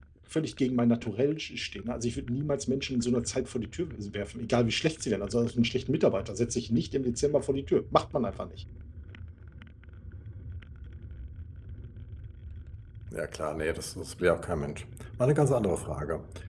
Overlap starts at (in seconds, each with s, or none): none